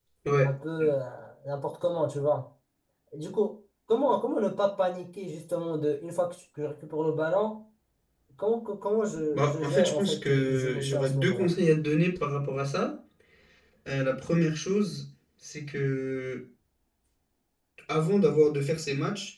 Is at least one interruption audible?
Yes, from 9.3 s

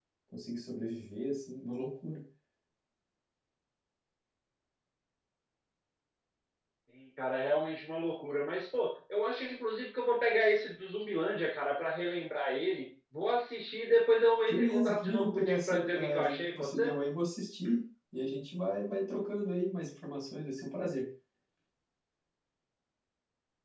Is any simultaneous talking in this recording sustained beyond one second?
Yes, from 14.5 s

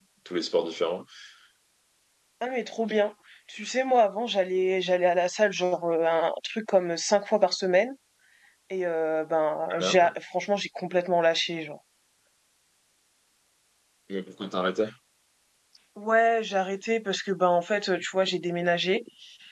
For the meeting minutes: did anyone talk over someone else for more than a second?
No

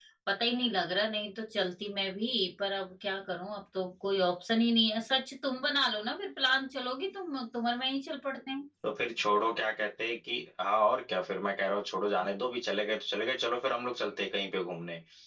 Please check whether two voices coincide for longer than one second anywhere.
No

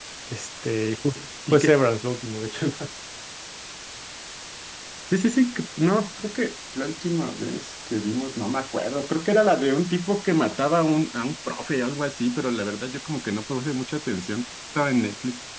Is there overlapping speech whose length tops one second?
No

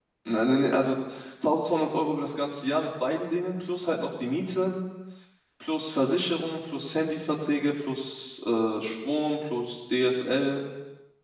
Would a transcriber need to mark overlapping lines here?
No

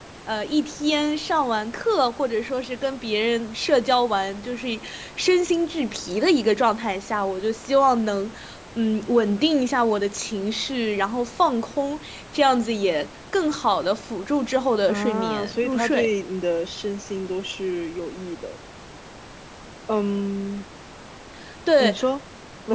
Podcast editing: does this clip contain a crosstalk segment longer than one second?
Yes, from 14.9 s

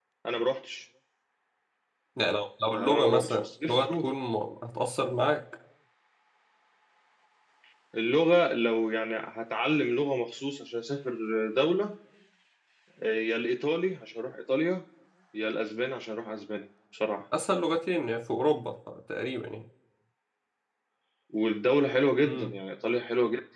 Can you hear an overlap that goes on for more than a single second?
Yes, from 2.7 s

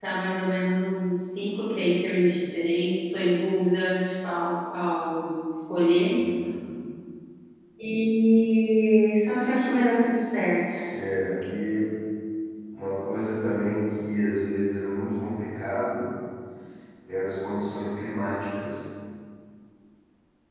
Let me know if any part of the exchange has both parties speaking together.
No

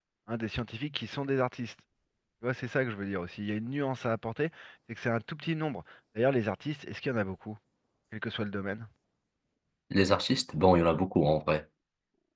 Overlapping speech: No

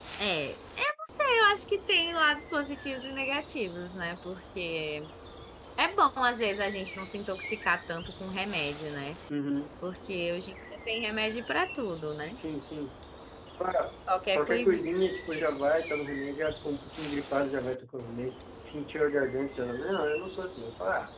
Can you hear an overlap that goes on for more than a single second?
No

